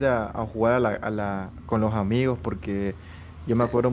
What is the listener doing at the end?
listening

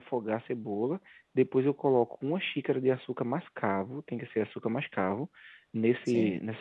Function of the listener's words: listening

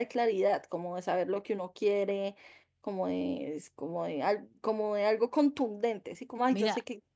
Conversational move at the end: listening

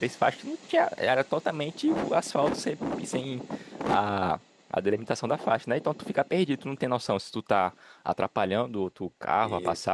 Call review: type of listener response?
listening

